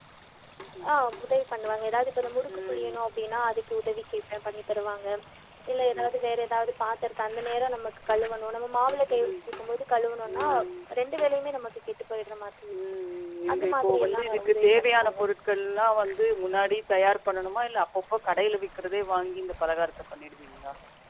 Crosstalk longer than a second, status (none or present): present